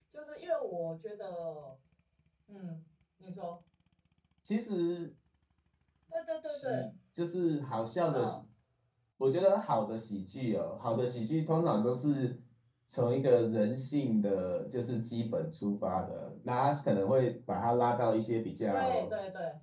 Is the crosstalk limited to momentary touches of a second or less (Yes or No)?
Yes